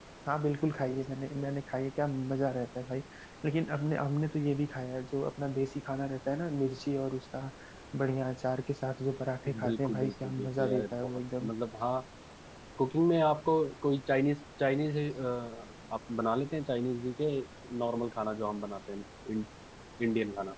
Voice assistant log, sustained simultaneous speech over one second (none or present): present